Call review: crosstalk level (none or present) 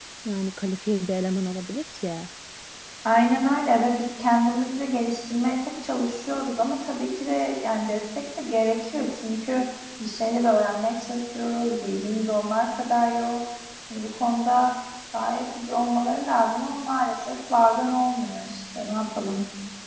none